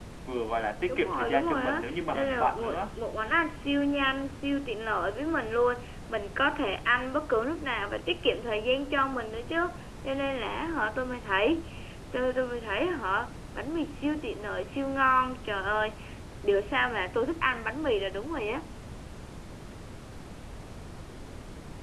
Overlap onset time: 0.9 s

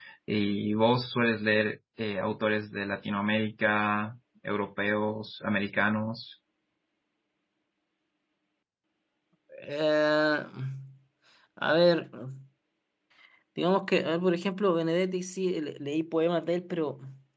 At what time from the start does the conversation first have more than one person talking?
none

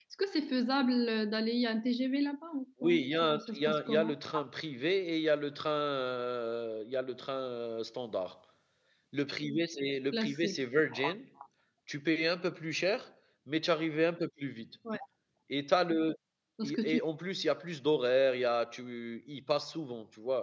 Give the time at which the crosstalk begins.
2.8 s

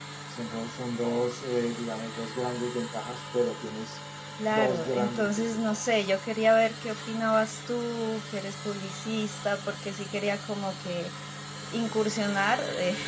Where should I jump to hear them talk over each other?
4.5 s

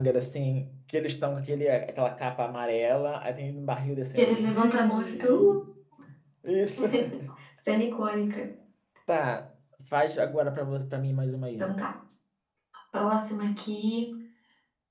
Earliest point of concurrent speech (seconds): 4.2 s

